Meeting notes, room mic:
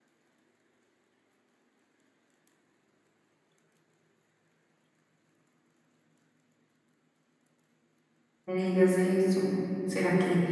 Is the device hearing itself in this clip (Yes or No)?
No